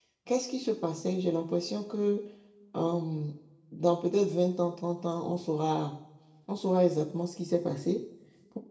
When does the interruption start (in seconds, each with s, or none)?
none